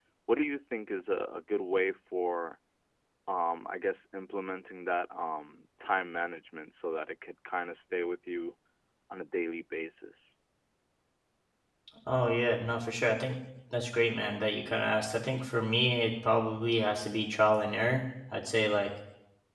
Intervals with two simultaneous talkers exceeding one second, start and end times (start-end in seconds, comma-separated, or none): none